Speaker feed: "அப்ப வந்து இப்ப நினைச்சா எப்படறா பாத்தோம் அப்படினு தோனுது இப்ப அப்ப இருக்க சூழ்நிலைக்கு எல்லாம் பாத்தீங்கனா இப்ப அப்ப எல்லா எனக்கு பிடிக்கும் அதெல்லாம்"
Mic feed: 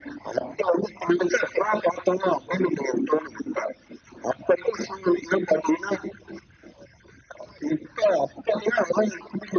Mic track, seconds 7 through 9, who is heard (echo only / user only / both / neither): echo only